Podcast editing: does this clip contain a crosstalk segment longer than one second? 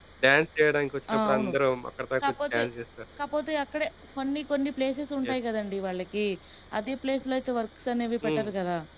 No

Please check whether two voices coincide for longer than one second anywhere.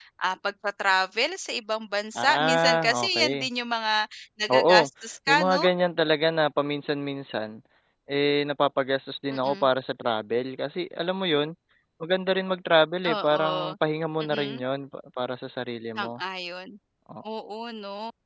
Yes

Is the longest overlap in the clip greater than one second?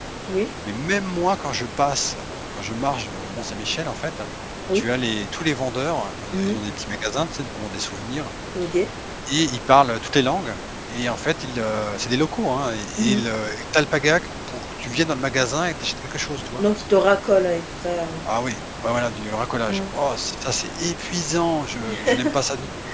No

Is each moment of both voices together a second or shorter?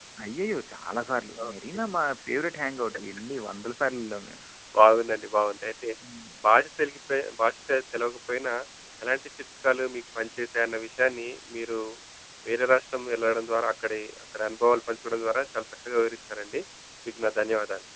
Yes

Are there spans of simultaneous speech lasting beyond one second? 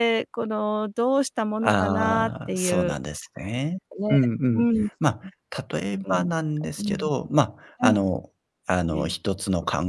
Yes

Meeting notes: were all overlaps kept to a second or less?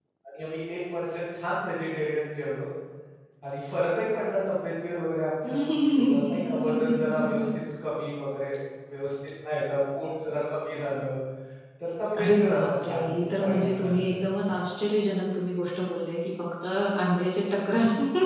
No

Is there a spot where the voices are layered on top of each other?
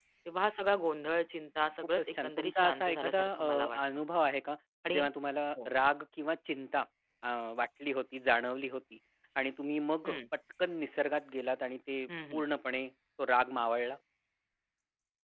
Yes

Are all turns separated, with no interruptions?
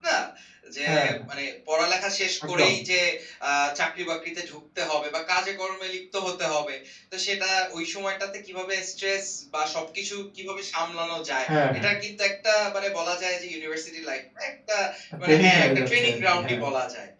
No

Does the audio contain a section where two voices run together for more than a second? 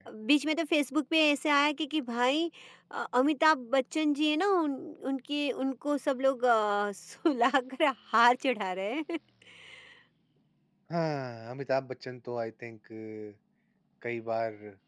No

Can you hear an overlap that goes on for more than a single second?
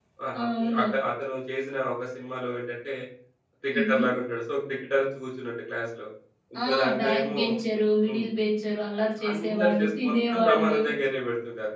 Yes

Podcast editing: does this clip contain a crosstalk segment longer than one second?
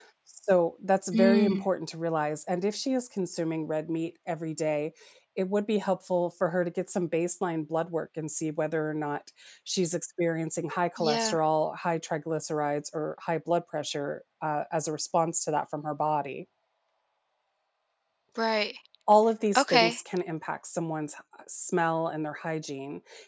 No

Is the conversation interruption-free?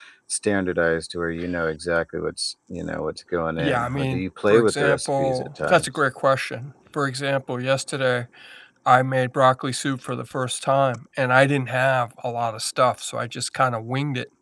No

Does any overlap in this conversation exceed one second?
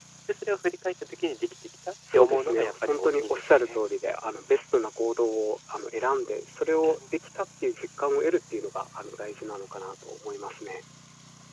Yes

